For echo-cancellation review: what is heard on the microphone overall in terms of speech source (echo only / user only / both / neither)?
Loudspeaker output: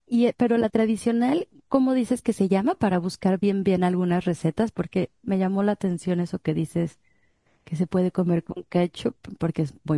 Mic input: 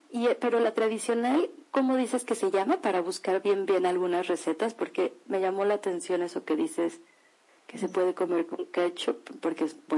both